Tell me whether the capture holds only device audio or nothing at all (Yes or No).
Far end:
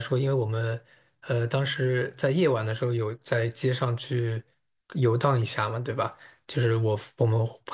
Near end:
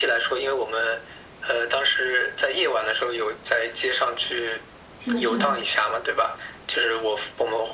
No